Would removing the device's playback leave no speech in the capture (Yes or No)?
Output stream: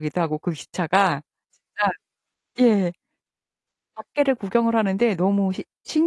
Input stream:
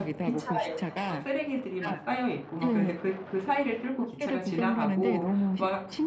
No